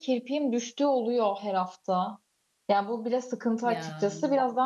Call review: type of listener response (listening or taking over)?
listening